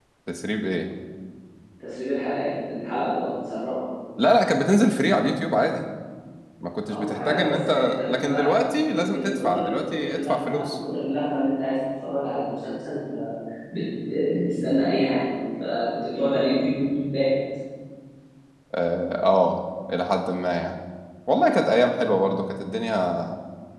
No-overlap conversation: No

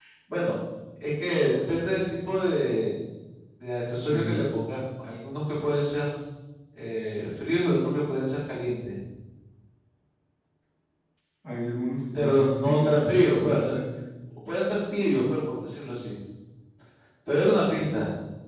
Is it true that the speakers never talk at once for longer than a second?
No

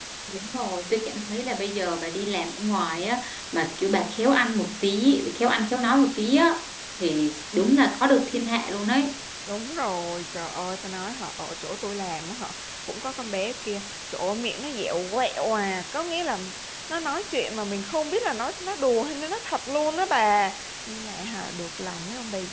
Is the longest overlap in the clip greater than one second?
No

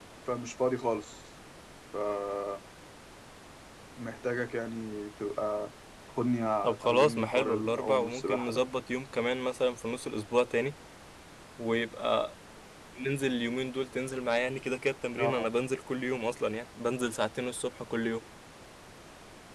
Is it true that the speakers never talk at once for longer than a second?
No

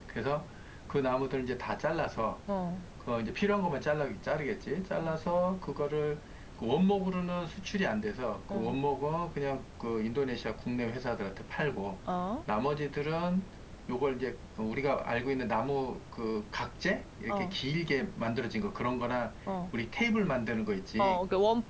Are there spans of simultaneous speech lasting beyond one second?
No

